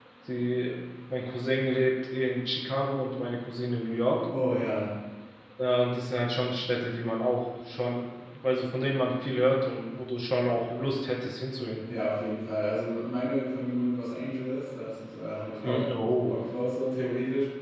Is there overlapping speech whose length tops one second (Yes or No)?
No